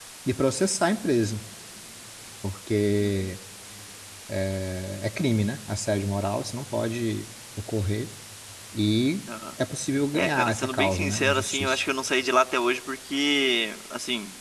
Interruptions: present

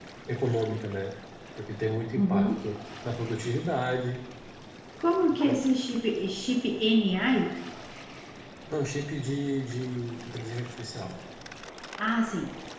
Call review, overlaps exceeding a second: none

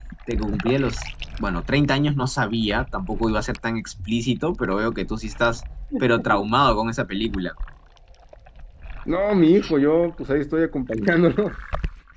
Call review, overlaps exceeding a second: none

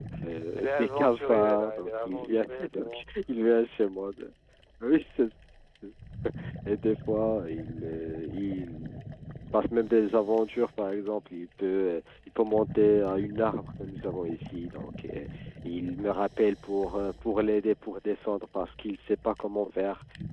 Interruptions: present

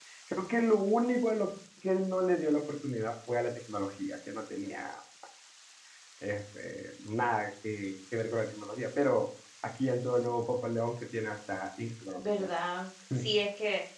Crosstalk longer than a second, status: none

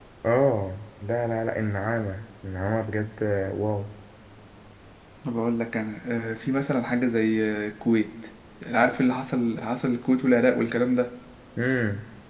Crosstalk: none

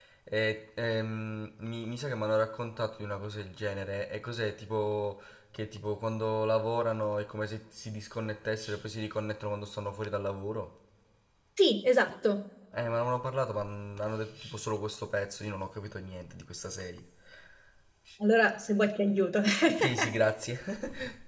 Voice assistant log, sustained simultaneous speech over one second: none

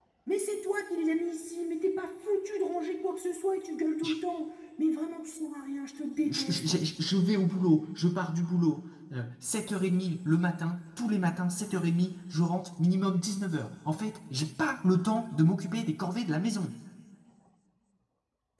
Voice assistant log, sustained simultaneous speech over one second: none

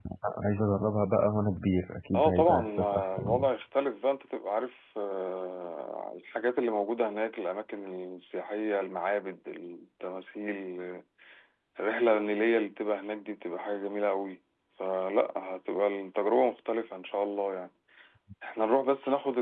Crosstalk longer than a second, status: present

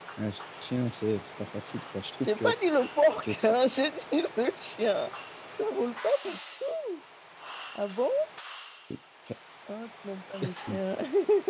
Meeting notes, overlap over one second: none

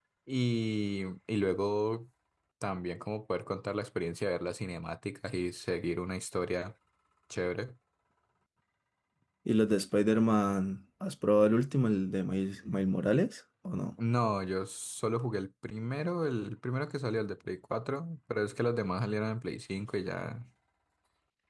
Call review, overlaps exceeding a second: none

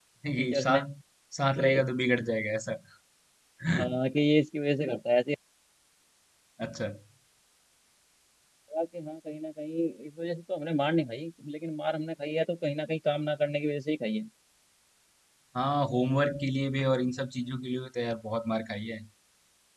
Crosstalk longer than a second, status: none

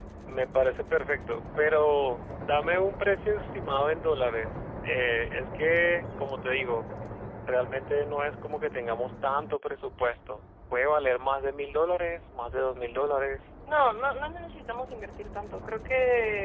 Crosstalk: none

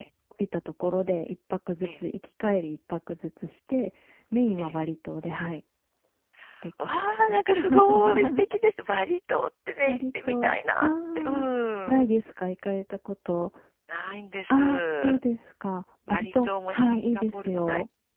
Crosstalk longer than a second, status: present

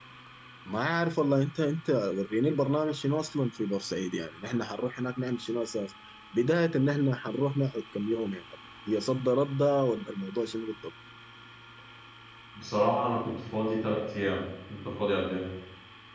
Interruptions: none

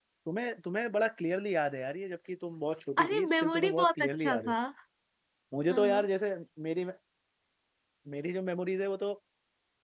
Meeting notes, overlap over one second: present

